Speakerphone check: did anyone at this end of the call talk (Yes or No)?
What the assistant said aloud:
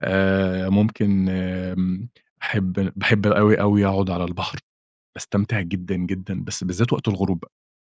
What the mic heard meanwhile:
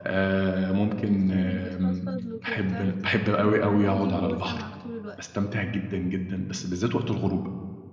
Yes